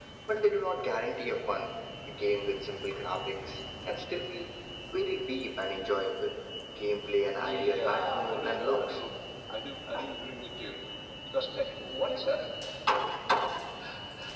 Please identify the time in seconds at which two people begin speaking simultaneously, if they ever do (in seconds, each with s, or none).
7.4 s